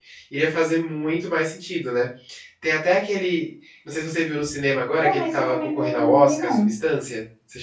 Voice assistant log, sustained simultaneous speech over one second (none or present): present